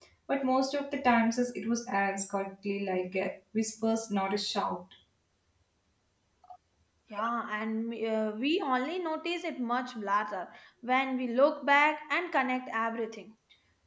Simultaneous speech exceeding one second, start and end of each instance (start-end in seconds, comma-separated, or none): none